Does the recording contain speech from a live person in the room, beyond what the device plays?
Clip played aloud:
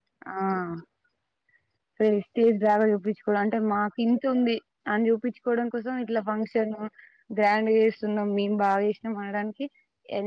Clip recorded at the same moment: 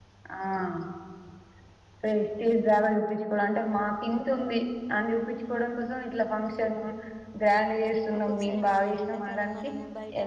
Yes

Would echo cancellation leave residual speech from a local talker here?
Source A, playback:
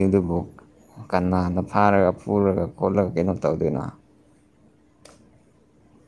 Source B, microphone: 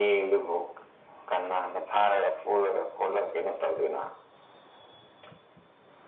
No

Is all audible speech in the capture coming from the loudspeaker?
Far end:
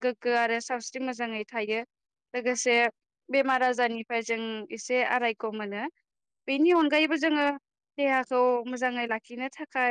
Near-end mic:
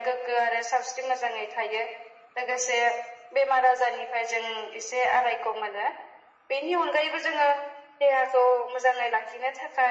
Yes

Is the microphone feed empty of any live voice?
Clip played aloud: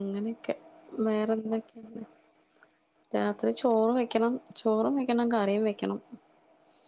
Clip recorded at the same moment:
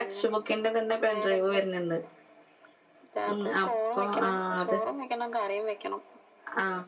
No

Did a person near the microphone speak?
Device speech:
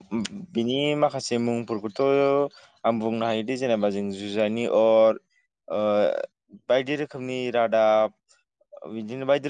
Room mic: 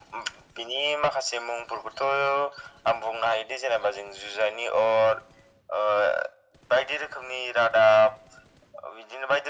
No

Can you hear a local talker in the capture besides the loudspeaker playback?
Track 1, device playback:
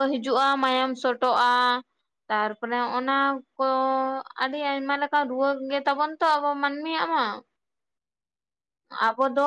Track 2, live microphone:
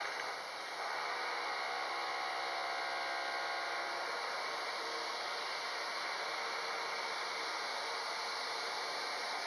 No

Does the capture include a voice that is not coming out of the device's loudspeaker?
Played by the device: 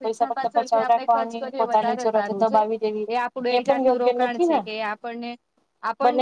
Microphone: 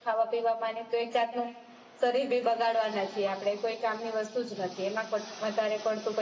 Yes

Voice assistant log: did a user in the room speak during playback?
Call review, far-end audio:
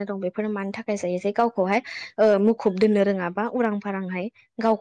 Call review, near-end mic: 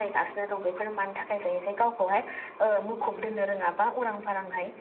No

